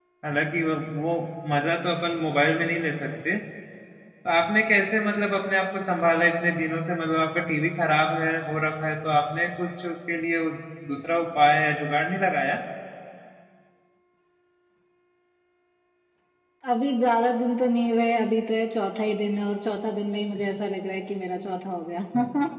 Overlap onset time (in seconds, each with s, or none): none